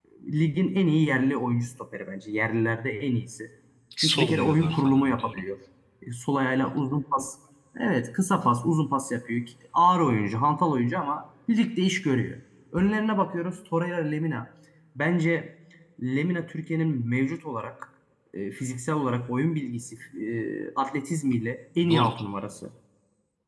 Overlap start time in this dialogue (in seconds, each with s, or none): 4.0 s